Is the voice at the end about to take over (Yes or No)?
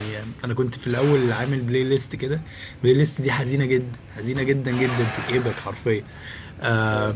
No